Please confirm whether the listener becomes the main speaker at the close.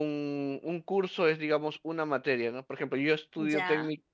No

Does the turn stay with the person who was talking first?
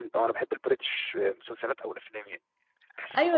No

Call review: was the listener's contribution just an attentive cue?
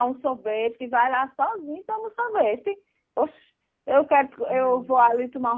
Yes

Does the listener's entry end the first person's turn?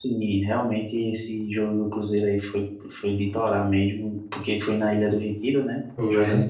No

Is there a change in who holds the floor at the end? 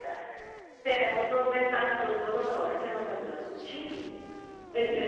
No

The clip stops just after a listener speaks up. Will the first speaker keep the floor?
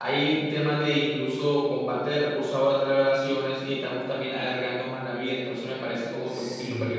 No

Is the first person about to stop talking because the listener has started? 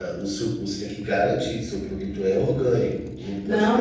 Yes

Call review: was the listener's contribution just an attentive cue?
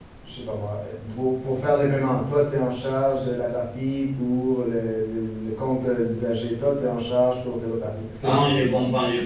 No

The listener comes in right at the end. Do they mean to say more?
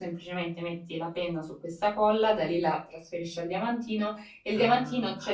No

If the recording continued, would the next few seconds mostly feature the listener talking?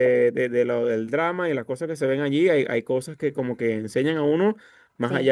No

